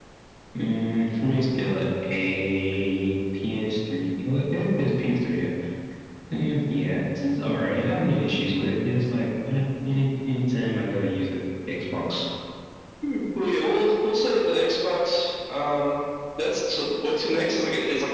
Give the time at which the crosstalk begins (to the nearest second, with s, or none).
none